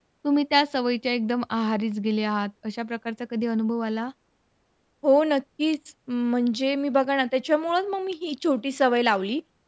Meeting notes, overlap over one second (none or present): none